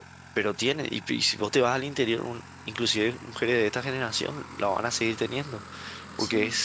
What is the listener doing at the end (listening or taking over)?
listening